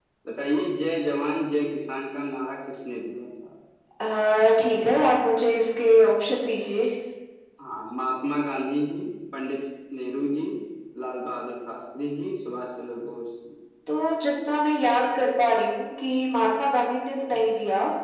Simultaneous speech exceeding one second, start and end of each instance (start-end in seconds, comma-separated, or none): none